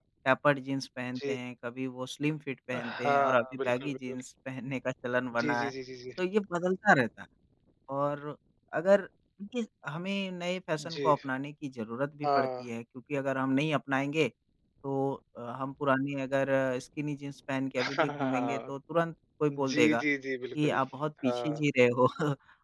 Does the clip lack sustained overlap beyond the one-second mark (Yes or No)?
No